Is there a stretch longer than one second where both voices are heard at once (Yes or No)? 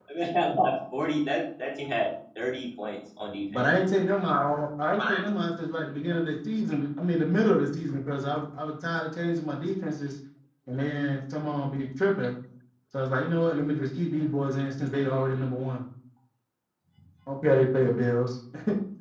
No